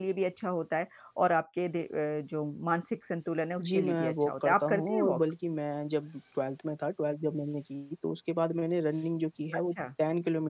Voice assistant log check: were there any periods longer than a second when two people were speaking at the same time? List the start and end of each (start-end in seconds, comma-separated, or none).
3.7-5.2